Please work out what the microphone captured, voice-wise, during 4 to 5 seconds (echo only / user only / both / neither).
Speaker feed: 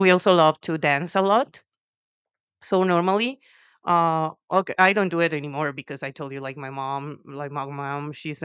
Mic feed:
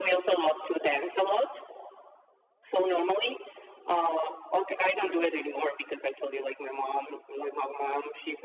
echo only